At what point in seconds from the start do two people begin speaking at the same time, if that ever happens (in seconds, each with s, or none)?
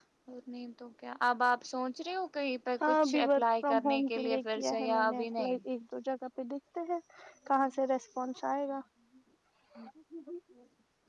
2.8 s